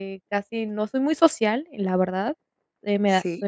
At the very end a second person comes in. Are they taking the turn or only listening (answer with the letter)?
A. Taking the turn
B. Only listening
B